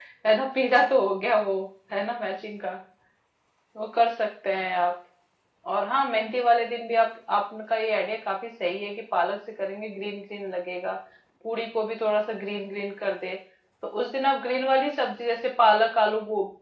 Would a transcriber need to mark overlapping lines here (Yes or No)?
No